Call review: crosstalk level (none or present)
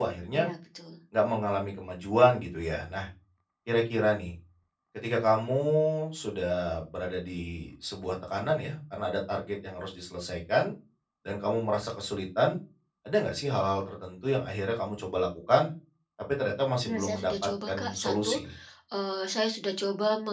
present